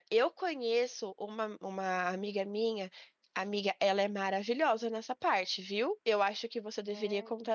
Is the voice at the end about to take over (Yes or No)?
No